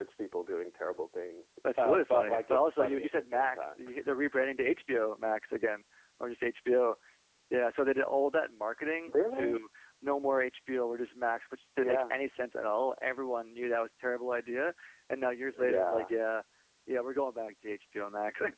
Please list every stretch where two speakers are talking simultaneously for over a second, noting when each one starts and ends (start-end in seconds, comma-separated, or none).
1.8-3.7